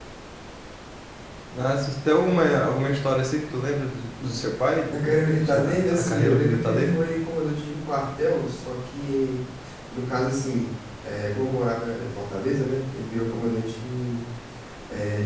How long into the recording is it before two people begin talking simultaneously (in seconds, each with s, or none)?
4.7 s